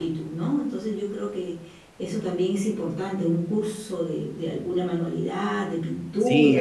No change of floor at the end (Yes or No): No